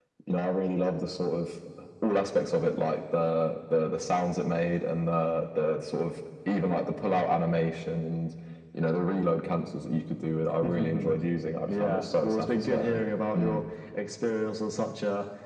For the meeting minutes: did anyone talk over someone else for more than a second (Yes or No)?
Yes